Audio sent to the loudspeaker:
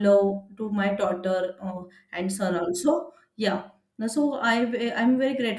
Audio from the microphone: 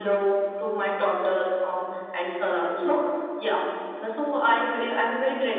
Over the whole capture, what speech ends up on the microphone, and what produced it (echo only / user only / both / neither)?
echo only